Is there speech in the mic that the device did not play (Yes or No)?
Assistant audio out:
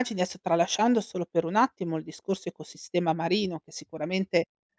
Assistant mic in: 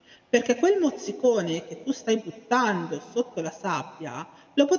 Yes